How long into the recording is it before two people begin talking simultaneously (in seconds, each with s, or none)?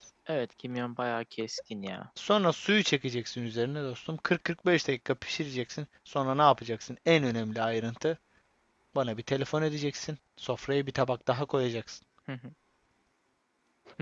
none